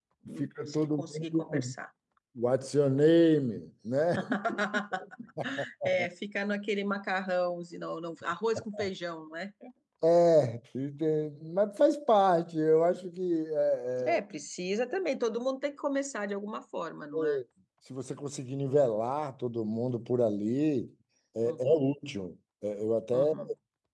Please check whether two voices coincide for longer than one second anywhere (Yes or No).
Yes